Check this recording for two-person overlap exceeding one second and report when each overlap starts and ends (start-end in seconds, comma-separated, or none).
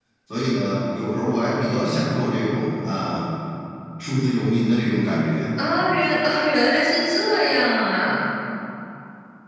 none